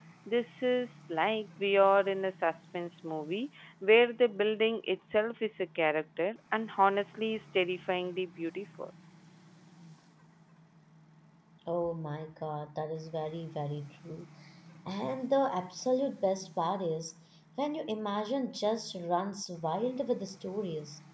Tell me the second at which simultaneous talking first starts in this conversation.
none

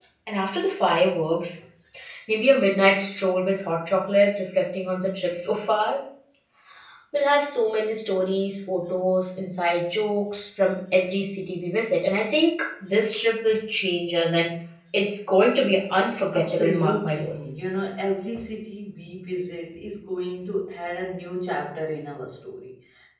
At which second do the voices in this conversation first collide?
16.3 s

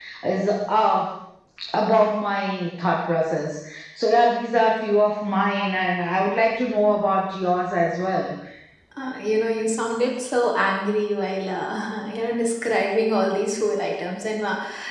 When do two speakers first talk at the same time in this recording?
none

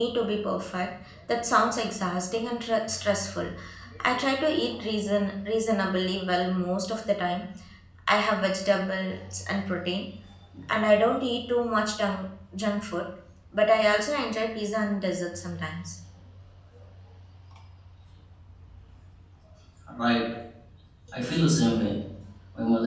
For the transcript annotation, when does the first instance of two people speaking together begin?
none

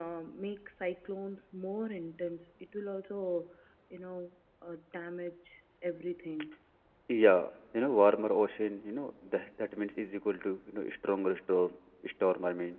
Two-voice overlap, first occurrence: none

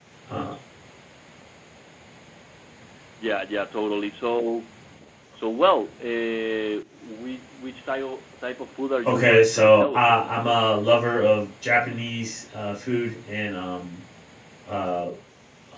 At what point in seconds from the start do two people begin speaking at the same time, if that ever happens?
9.0 s

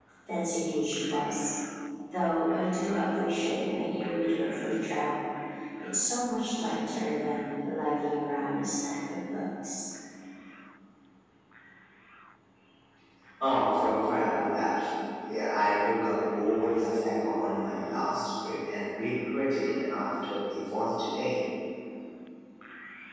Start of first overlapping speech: none

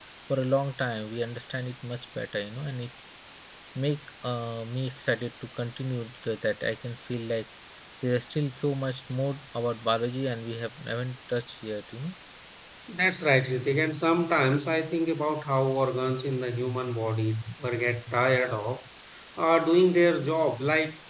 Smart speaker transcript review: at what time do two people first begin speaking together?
none

